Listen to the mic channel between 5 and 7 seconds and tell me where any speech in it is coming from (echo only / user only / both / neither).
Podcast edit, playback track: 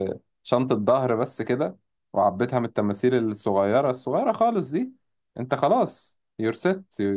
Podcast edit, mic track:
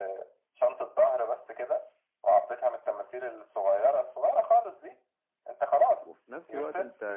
both